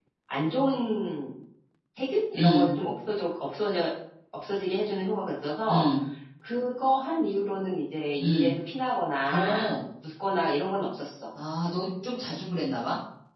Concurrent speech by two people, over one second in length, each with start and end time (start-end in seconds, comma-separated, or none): none